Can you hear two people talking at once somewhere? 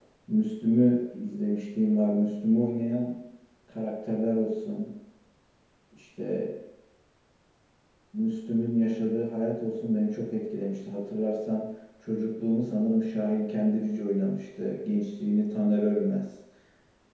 No

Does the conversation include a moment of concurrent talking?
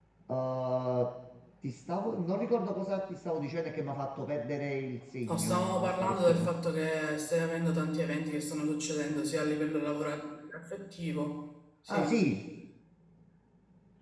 Yes, from 5.2 s

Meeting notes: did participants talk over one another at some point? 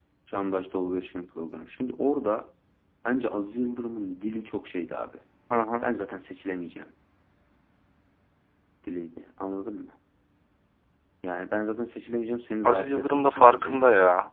Yes, from 12.6 s

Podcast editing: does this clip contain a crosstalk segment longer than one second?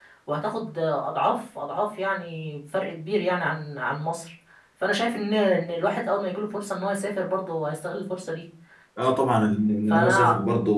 No

